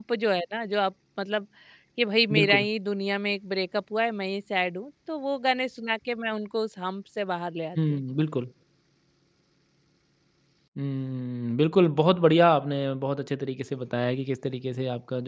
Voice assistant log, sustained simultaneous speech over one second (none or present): none